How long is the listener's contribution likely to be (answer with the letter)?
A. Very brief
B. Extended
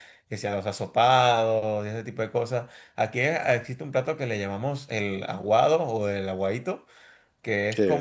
A